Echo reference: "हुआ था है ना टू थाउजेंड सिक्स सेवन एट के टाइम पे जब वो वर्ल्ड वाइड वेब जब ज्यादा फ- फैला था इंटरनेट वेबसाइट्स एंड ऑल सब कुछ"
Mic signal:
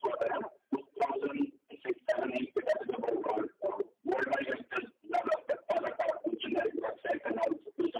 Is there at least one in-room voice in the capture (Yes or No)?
No